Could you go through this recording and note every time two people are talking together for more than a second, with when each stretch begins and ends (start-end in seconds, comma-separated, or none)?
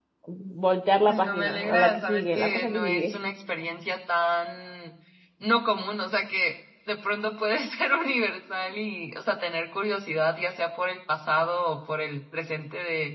1.1-3.2